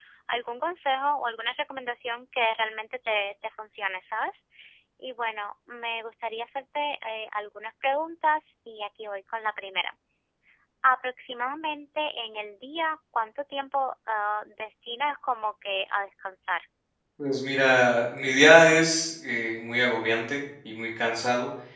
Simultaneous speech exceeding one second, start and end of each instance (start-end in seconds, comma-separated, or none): none